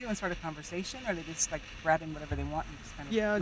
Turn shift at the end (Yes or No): Yes